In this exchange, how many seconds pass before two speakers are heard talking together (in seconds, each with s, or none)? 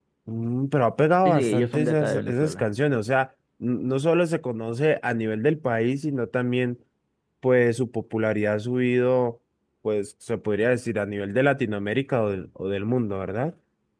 1.2 s